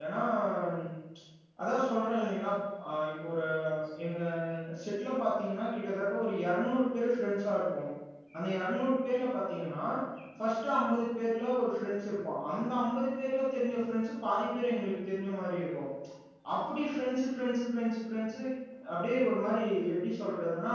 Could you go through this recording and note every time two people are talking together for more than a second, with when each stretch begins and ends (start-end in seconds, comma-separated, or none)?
none